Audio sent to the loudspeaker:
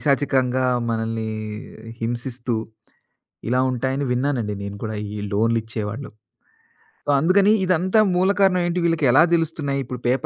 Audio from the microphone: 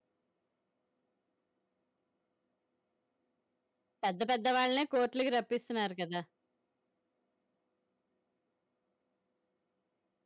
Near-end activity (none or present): present